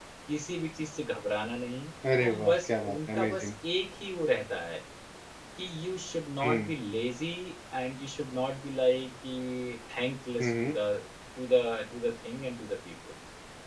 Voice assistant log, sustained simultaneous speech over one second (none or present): present